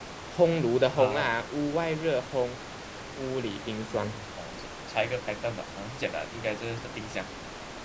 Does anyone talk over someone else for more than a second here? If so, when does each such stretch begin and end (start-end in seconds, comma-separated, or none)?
none